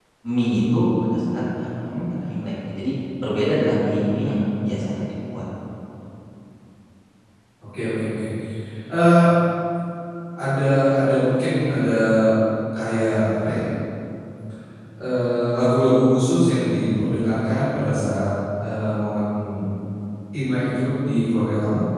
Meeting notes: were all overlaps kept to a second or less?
Yes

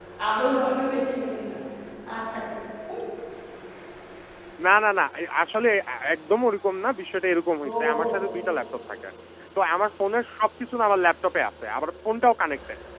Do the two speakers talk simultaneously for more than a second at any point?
No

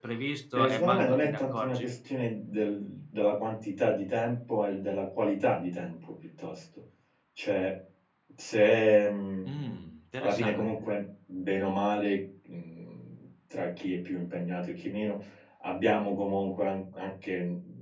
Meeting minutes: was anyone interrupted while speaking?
Yes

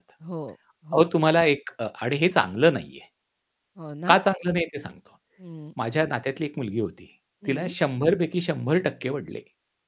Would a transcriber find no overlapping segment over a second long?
Yes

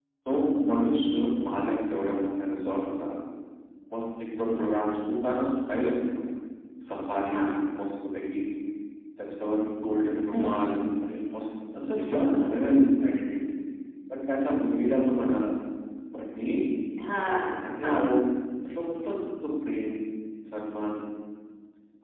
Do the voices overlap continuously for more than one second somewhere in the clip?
No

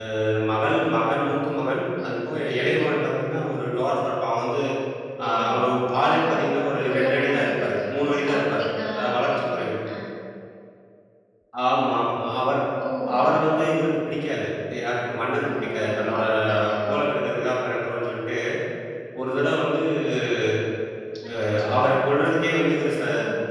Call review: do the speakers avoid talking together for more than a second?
No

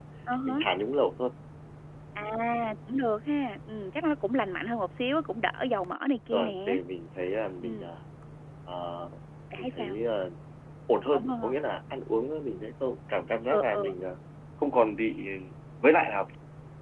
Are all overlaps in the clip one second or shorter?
Yes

